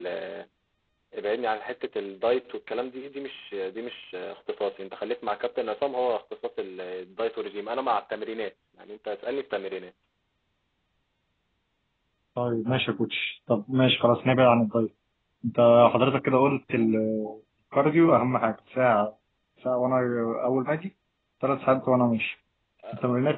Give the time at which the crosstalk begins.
none

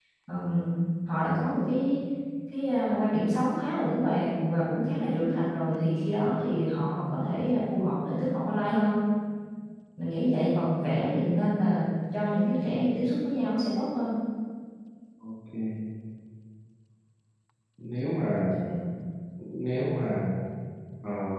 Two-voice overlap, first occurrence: none

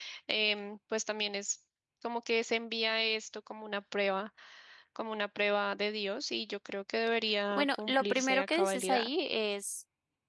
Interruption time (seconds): 7.5 s

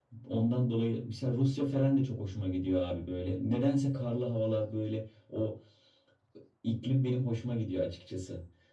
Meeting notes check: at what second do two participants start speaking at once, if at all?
none

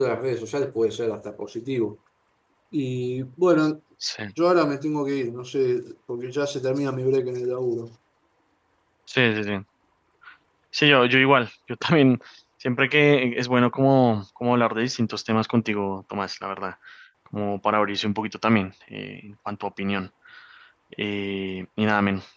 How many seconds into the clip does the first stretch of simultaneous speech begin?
none

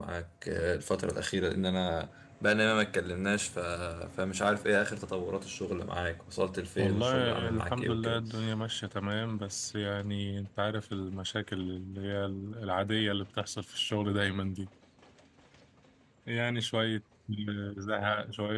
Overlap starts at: 6.8 s

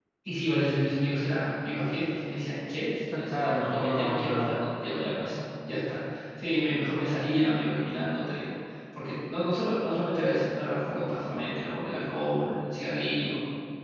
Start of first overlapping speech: 3.1 s

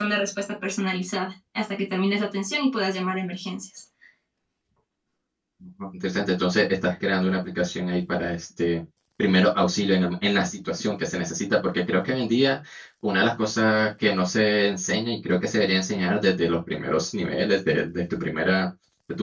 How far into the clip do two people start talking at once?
none

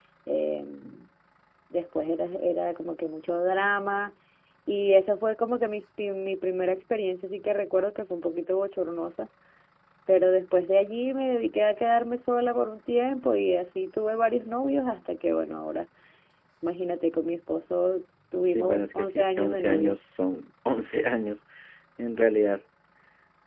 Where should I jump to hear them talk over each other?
18.5 s

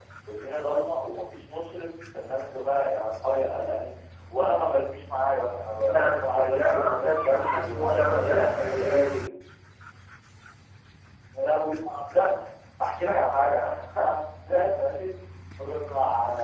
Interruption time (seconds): 5.9 s

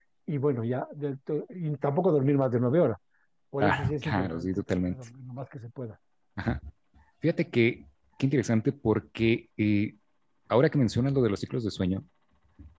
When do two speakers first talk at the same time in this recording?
3.6 s

